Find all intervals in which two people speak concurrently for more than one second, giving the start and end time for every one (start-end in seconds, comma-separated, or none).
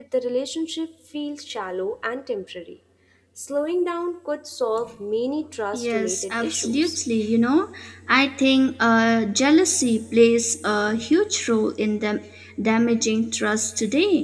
5.7-7.0